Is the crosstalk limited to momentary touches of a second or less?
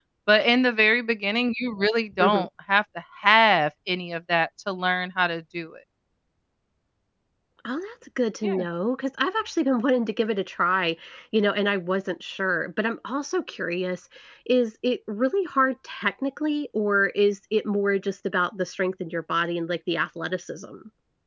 Yes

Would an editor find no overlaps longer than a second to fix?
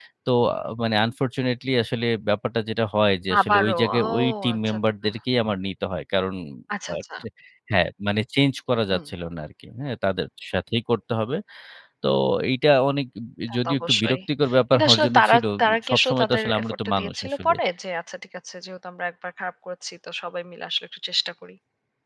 No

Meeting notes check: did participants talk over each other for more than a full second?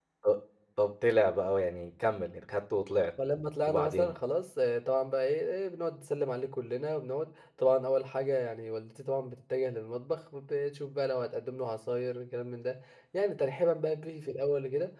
No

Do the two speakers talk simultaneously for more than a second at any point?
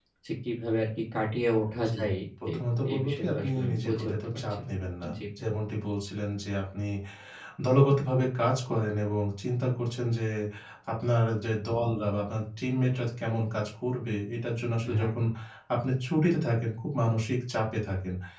Yes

